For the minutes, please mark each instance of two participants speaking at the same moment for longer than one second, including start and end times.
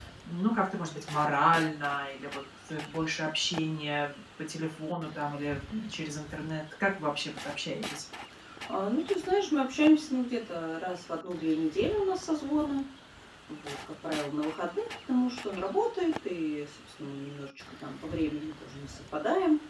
none

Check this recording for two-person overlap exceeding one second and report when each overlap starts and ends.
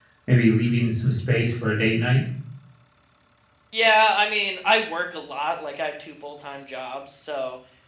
none

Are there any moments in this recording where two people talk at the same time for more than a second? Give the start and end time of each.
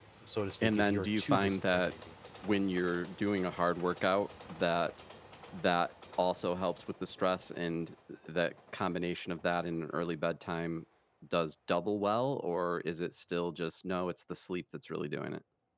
0.6-1.9

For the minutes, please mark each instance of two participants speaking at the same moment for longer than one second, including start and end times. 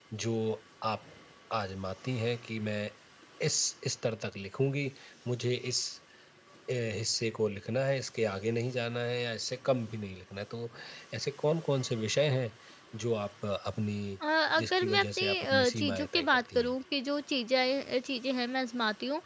14.6-16.7

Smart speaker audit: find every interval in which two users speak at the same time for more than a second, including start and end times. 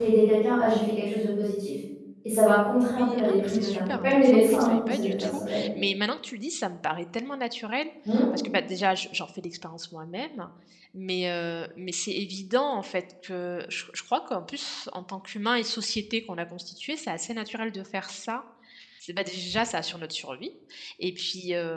2.8-5.7

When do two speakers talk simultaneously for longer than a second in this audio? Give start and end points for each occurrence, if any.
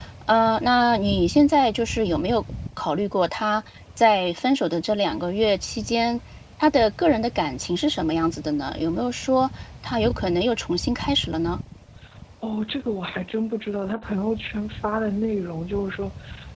none

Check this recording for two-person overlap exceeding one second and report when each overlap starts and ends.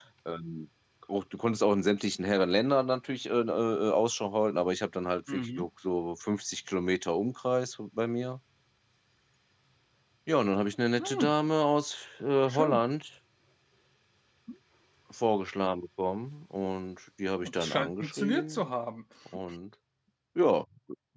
17.4-18.6

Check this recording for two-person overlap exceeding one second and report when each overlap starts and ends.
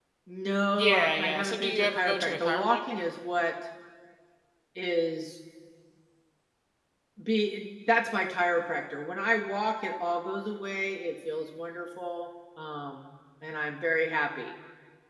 0.8-3.0

